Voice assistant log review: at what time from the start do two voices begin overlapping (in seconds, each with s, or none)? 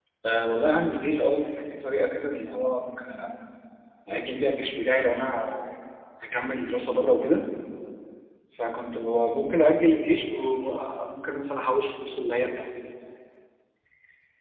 none